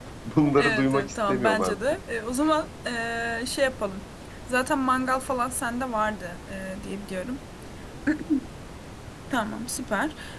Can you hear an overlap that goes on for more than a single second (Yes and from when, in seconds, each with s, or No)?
Yes, from 0.6 s